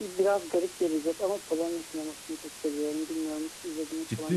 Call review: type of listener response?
taking over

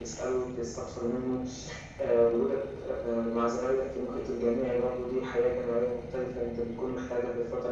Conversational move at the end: taking over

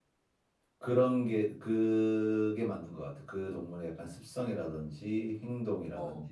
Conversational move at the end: listening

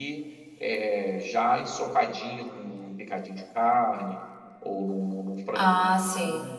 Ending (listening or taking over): listening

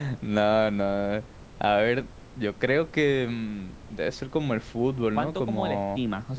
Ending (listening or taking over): taking over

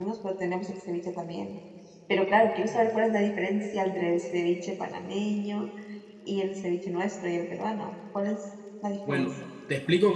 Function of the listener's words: taking over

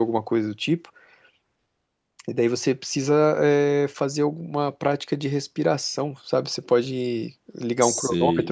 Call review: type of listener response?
taking over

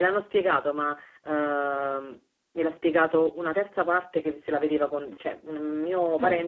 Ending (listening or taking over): listening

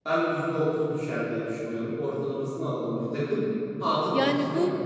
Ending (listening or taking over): taking over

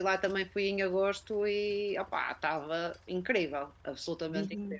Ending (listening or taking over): taking over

